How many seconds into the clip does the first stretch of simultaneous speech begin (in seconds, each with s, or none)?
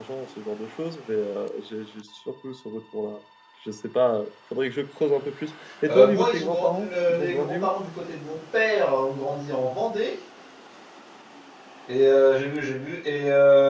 5.9 s